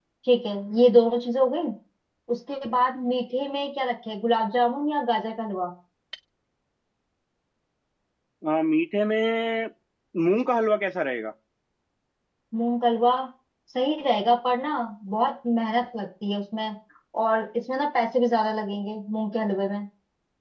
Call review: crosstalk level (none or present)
none